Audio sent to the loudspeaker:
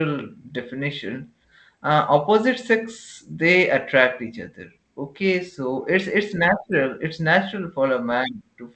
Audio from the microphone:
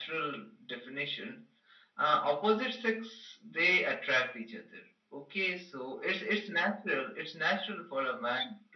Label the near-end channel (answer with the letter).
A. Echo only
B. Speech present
A